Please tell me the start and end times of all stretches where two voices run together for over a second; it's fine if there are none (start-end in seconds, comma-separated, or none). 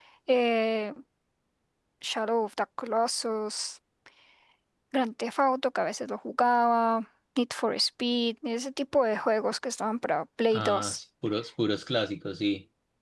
none